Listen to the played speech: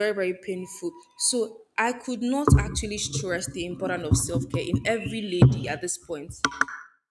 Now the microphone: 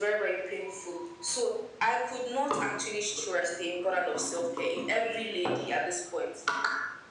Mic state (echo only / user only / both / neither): echo only